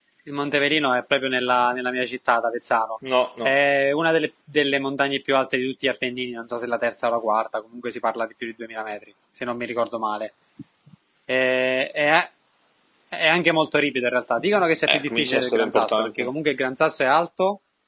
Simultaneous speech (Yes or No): Yes